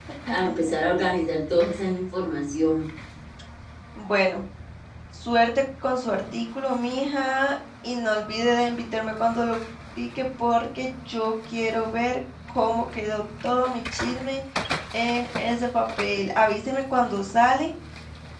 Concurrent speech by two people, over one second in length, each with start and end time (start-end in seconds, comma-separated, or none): none